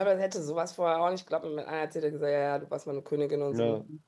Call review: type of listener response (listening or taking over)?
listening